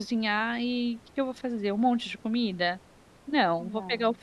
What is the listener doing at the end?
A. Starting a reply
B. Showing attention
B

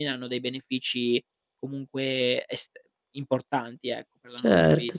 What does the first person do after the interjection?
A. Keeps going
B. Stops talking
B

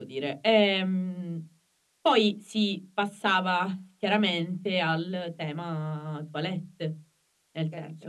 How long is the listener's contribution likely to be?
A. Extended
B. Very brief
B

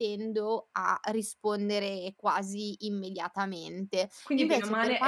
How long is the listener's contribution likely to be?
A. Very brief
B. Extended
B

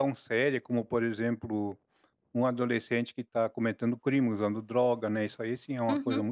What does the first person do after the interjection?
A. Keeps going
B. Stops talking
B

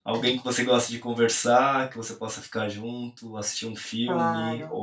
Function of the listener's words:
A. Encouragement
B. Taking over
A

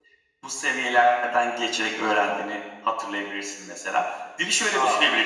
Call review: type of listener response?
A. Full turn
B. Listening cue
B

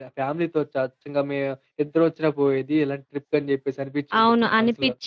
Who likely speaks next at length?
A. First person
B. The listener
B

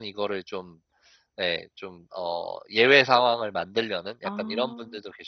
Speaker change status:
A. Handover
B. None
B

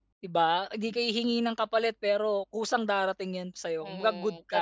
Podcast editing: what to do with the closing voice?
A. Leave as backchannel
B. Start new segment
B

